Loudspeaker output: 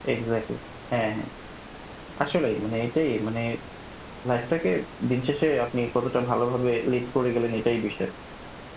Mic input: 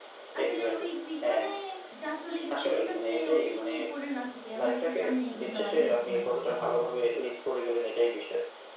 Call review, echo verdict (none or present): present